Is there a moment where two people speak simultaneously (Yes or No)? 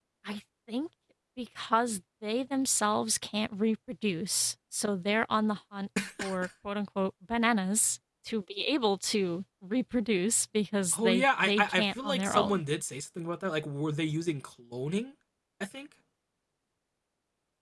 Yes